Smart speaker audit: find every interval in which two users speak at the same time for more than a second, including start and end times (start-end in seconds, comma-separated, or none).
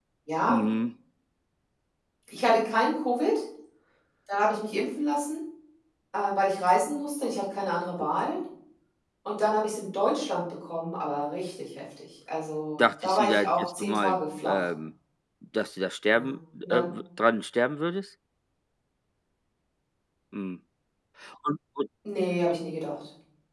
12.8-14.7